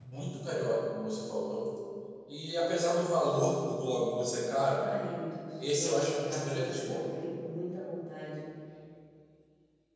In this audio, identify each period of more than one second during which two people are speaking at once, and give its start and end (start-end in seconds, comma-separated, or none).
5.6-7.0